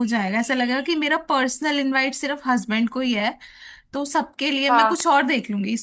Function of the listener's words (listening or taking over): listening